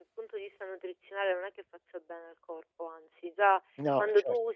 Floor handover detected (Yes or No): No